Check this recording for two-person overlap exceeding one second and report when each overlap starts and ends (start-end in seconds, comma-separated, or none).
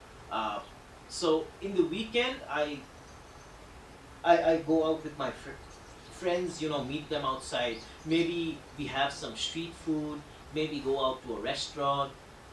none